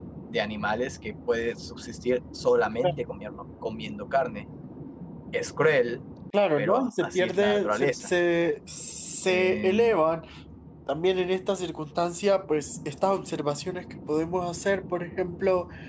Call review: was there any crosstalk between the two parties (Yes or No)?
Yes